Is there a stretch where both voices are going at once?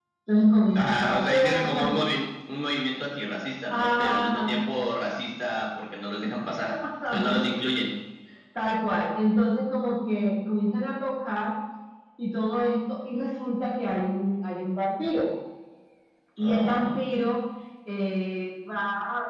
Yes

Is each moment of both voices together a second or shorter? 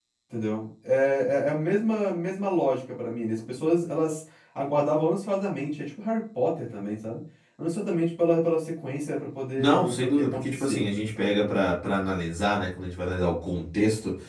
No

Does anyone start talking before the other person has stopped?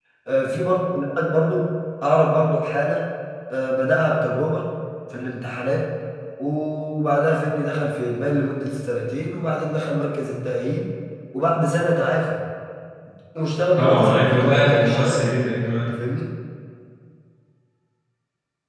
Yes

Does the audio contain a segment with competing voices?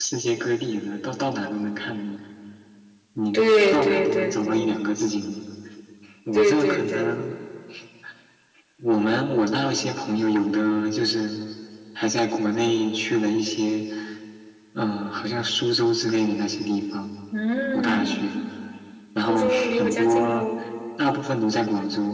Yes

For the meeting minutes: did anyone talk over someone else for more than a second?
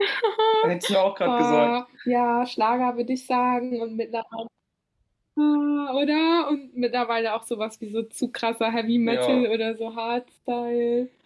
No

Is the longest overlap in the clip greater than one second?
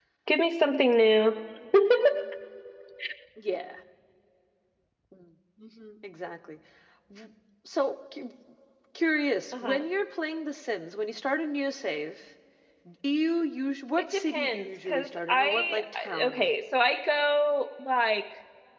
Yes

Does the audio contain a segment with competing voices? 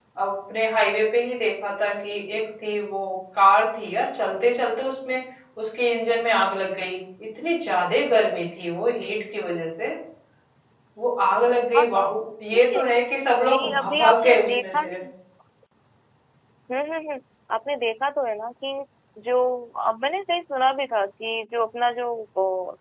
Yes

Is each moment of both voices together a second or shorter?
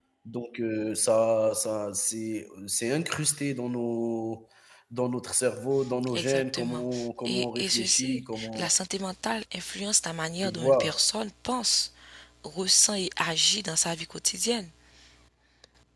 No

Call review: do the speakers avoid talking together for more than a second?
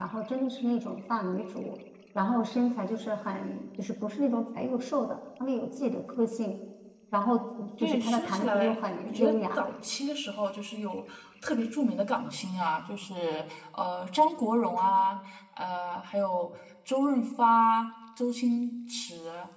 No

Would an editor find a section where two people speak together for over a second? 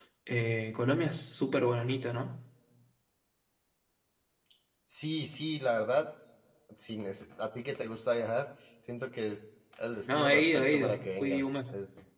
Yes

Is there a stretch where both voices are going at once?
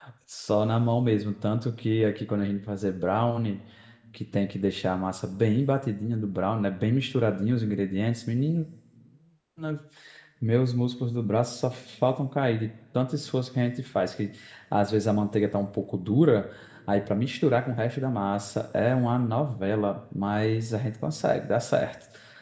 No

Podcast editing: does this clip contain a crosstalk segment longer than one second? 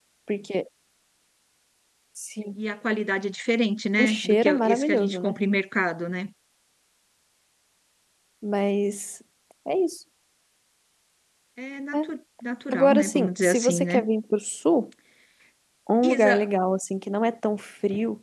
Yes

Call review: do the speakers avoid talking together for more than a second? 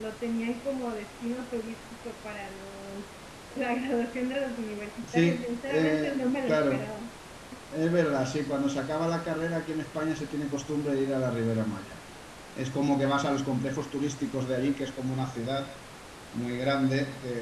No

